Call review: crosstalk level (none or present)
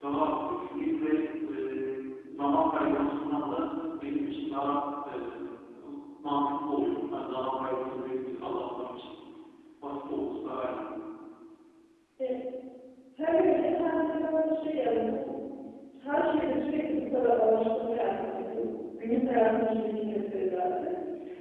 none